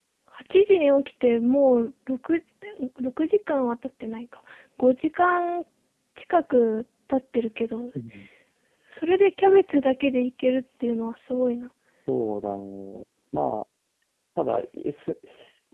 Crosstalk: none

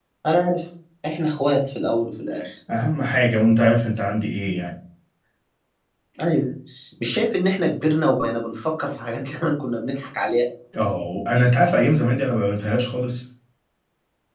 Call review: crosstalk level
none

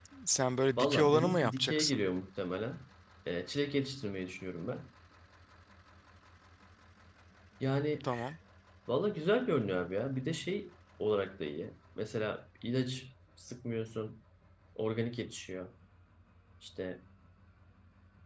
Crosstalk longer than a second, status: present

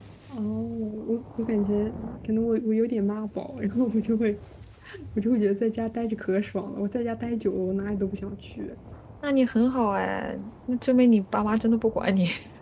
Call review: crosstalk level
none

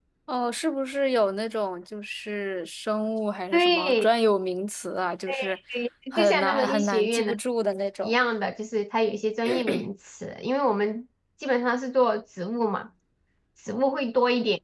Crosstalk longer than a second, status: present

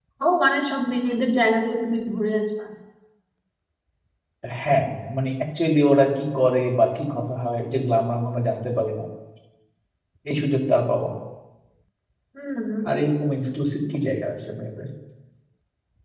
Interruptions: none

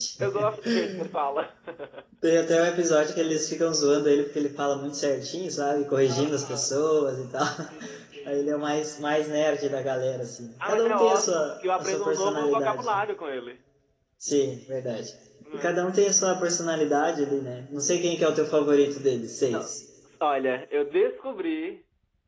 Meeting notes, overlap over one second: present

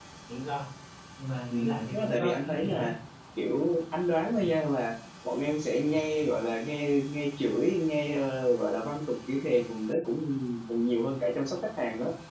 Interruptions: present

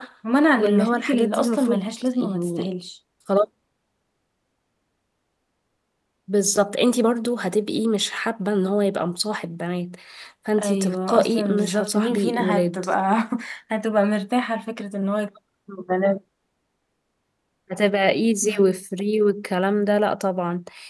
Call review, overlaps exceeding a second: present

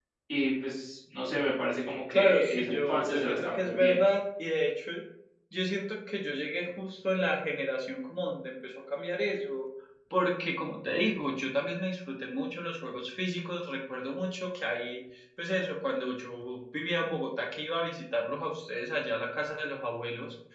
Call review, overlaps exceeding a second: present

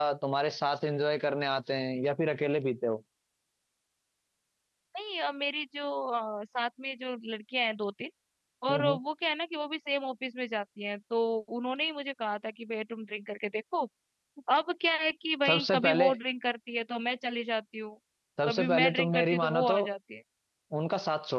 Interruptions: present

